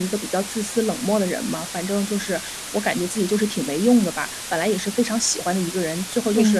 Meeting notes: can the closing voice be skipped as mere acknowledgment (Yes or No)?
Yes